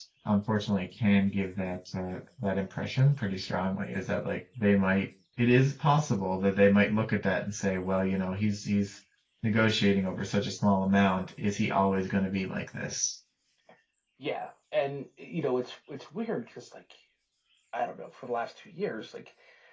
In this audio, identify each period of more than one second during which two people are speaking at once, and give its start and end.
none

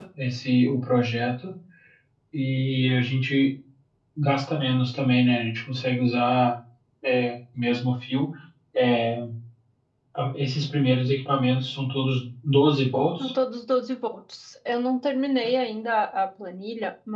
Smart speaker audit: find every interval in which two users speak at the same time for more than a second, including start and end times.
none

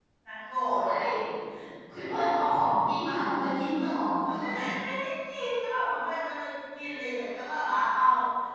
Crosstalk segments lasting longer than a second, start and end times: none

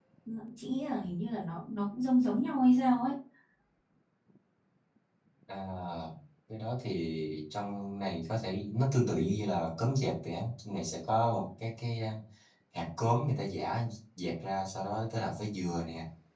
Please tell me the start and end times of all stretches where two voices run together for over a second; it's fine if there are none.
none

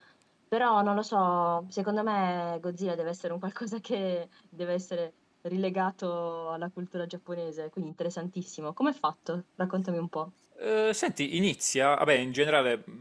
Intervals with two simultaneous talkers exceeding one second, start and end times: none

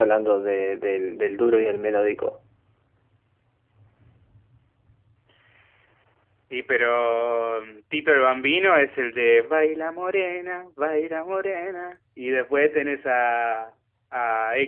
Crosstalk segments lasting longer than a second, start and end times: none

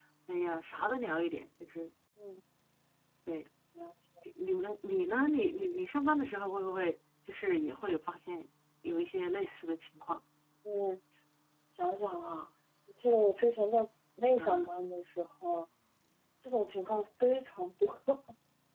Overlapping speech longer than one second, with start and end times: none

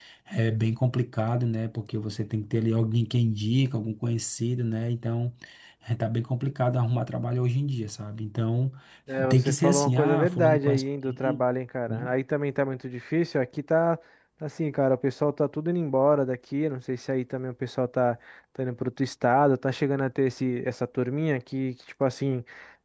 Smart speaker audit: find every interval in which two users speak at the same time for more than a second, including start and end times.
9.3-11.4

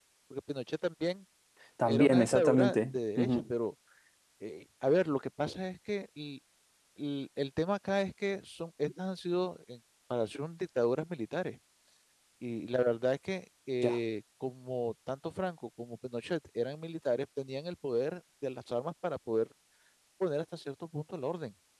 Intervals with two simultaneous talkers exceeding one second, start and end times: 1.8-3.4

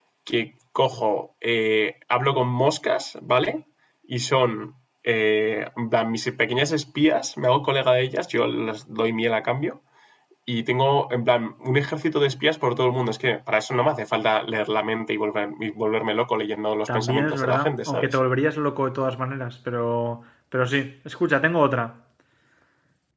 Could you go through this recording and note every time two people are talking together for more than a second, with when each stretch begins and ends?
16.9-18.2

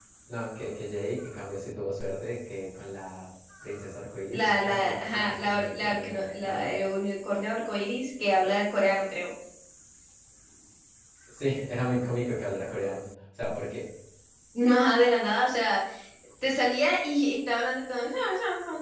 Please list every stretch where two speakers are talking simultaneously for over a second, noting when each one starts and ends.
4.3-6.7

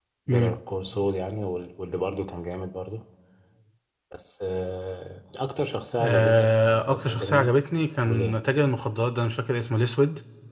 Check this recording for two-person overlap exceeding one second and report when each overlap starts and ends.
6.0-7.5

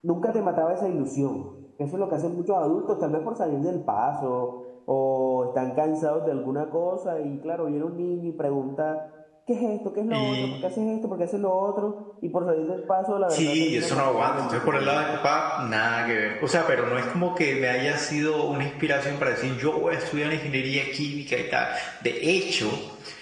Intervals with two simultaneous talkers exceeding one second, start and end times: 13.3-15.0

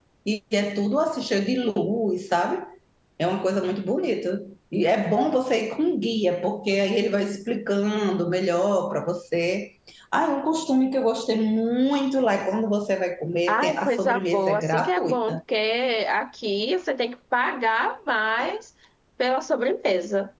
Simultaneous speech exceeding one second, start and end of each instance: 13.5-15.4

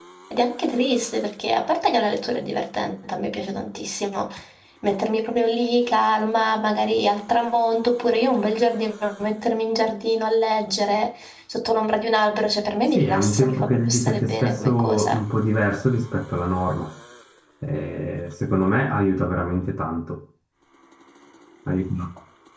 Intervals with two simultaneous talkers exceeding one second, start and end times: 12.9-15.2

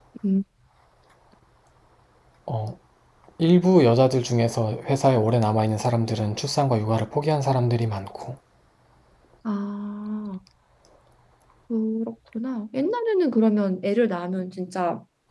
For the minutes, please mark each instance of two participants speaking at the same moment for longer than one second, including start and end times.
none

